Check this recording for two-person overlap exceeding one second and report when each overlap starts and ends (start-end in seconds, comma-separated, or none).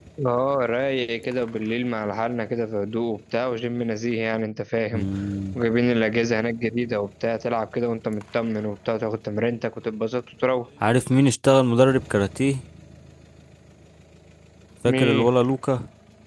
none